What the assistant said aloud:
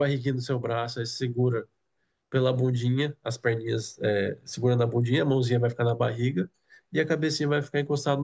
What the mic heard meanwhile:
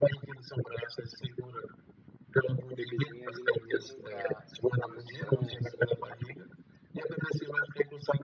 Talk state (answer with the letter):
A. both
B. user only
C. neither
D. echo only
A